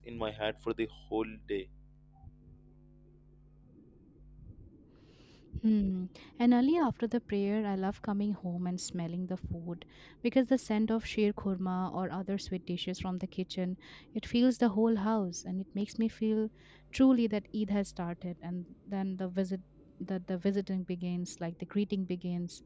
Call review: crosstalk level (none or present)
none